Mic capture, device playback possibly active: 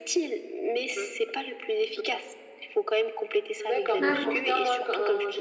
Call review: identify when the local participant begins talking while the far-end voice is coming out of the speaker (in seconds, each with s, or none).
4.0 s